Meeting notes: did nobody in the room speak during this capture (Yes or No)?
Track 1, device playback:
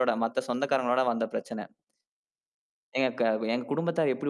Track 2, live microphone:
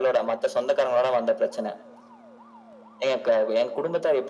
Yes